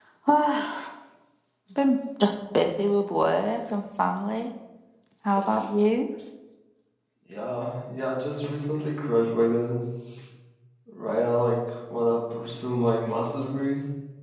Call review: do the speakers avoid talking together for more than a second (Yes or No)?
Yes